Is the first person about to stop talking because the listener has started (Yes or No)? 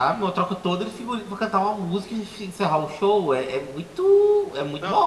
Yes